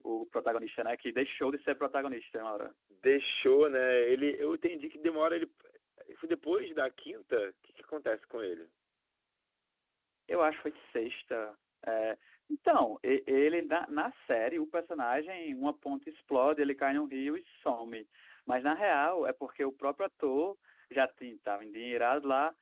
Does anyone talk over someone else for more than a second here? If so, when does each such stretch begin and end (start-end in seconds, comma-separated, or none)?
none